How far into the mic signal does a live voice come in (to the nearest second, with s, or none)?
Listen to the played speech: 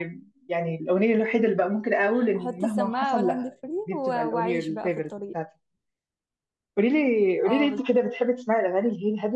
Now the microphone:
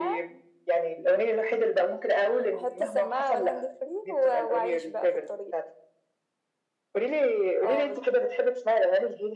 none